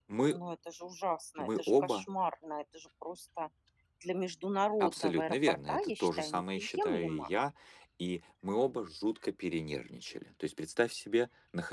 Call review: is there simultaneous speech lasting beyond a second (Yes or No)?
Yes